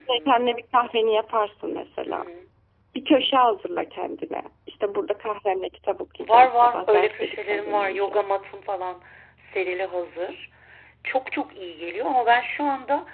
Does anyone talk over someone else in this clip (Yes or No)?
Yes